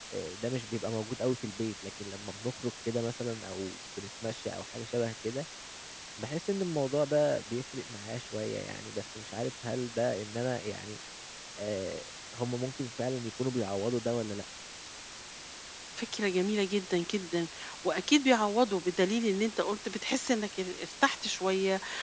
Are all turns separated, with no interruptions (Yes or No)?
Yes